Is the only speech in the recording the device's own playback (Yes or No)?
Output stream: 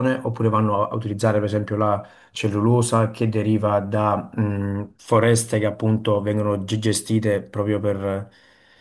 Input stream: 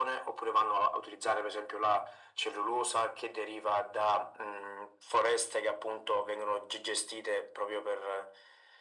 Yes